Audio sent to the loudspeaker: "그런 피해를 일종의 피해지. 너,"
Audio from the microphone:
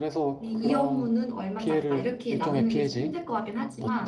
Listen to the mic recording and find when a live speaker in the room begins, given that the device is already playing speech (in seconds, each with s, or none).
0.4 s